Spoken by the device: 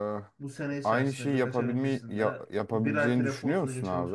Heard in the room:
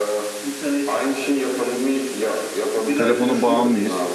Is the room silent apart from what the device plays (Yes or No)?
No